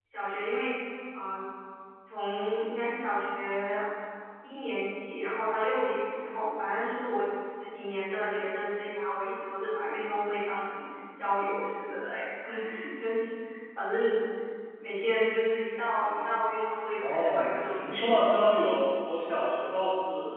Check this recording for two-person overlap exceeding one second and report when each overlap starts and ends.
17.0-18.2

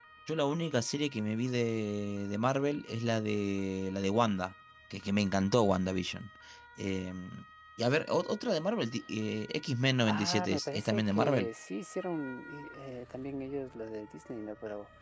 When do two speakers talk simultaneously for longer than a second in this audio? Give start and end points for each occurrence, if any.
10.1-11.5

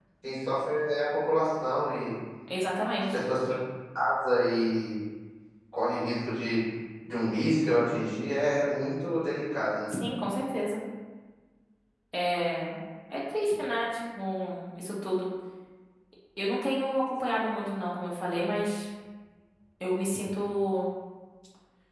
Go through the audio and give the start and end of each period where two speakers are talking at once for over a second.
none

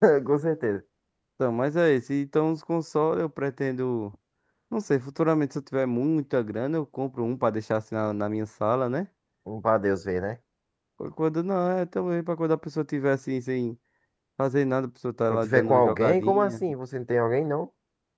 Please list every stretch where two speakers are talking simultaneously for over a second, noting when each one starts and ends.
15.3-16.6

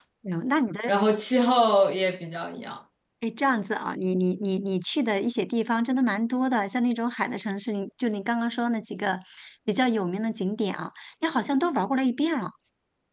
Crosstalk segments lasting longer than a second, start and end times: none

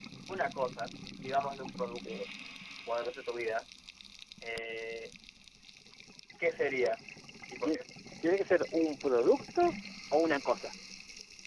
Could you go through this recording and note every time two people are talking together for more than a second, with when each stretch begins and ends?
none

